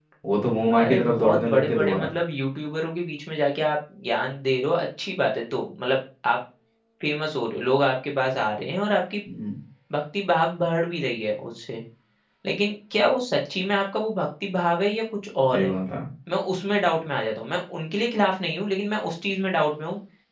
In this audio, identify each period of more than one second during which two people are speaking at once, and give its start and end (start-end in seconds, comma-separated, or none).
0.8-2.1